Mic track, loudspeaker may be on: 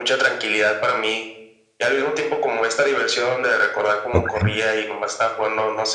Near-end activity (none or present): present